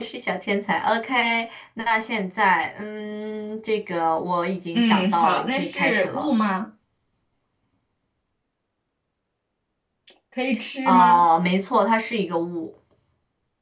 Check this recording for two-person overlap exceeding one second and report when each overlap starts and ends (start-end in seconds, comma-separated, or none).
4.7-6.3